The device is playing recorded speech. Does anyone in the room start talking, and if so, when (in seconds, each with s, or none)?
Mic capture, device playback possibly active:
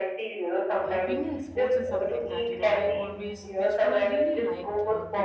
0.9 s